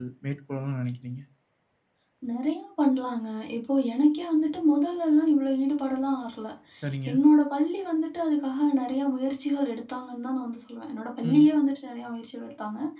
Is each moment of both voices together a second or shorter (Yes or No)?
Yes